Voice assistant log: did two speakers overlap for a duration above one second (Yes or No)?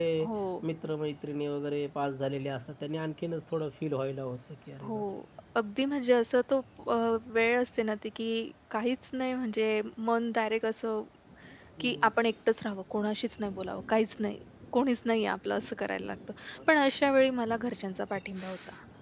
No